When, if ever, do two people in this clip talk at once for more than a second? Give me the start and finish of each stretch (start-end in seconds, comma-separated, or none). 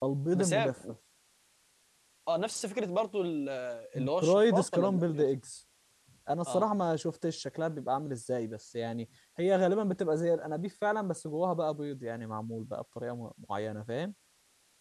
4.0-5.2